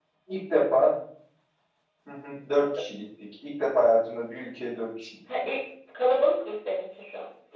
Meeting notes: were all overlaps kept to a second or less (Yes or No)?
Yes